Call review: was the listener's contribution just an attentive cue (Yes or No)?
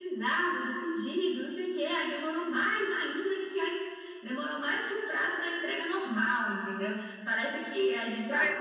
No